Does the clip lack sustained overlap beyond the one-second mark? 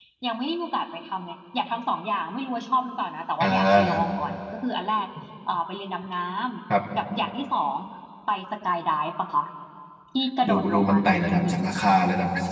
No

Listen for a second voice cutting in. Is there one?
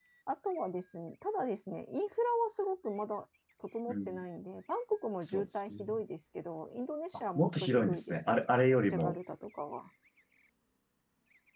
Yes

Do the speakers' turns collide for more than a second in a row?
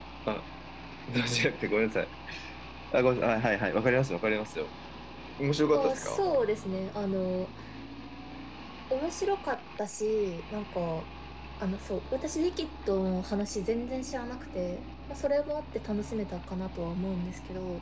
No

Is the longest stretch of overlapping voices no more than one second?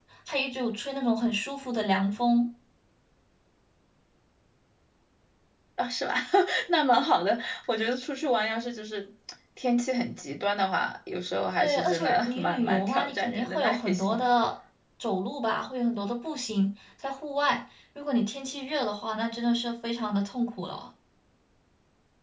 No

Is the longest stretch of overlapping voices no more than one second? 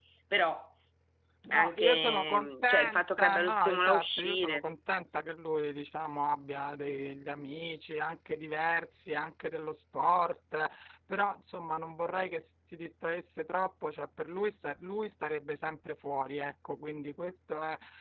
No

